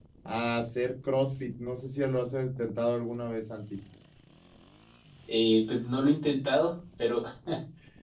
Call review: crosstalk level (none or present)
none